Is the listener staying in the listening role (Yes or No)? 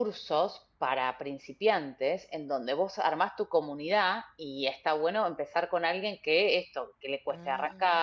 Yes